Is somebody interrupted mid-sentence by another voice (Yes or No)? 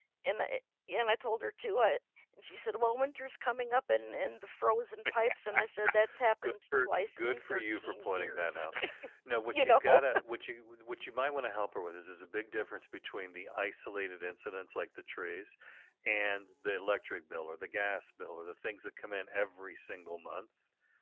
Yes